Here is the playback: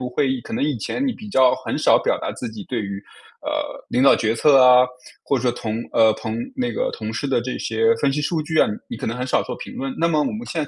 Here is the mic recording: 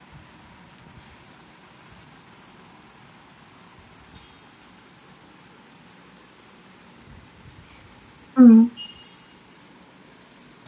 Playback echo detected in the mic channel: No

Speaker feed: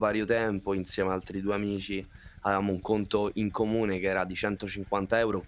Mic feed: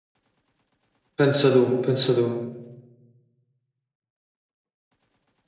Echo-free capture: Yes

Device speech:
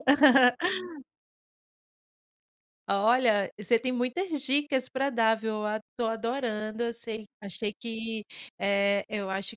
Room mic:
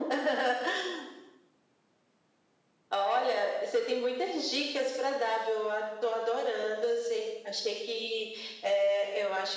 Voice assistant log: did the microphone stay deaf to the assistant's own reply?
No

